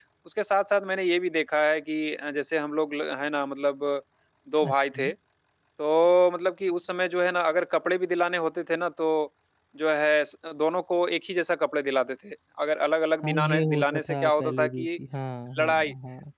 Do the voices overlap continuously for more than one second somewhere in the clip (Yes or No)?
Yes